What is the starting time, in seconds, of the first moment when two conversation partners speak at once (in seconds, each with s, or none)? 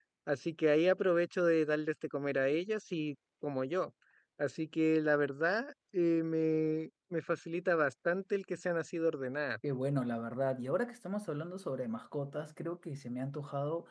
none